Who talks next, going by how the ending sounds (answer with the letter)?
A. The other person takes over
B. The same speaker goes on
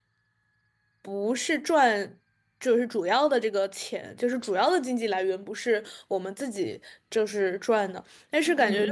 B